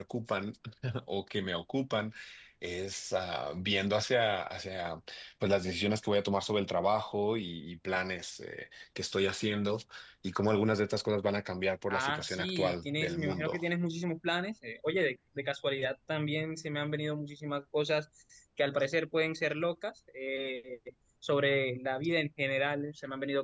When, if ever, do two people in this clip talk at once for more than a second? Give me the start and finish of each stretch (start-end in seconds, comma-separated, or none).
11.9-13.6